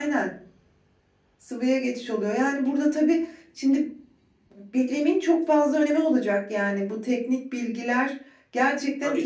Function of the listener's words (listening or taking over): taking over